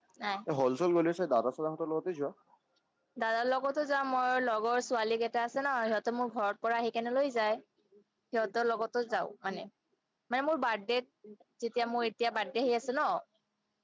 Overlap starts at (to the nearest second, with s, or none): none